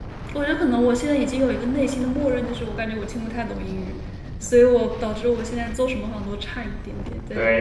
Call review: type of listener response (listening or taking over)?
taking over